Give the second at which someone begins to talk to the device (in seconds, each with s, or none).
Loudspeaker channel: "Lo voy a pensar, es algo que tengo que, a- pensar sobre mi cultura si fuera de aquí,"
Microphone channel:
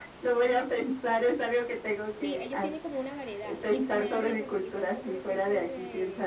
2.1 s